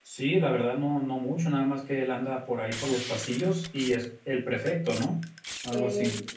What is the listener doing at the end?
taking over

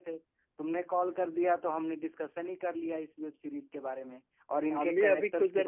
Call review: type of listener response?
taking over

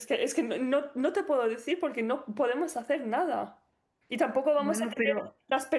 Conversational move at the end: listening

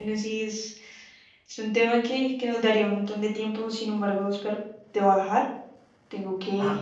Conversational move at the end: listening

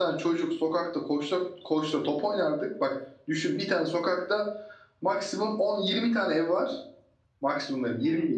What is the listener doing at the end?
listening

